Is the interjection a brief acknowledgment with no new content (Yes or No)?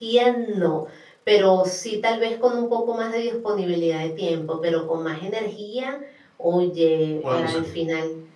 Yes